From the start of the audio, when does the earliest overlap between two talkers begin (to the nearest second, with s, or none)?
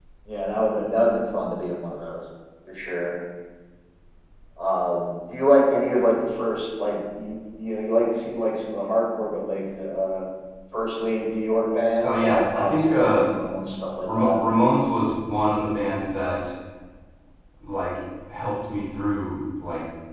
12 s